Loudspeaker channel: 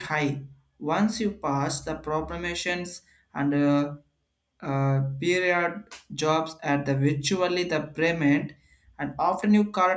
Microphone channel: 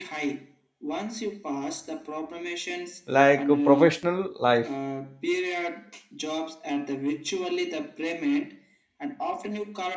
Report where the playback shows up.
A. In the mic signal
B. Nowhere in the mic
A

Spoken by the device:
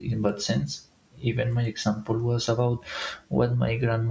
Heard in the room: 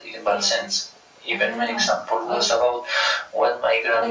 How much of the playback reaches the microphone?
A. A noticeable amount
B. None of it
A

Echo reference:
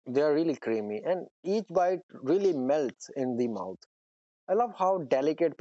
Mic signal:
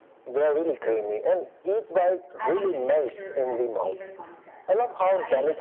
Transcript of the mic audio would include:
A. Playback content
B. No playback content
A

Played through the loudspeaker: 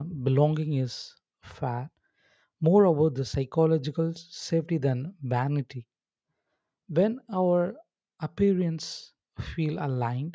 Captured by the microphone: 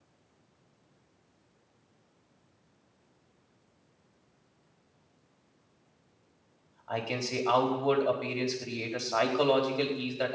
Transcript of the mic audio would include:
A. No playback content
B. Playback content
A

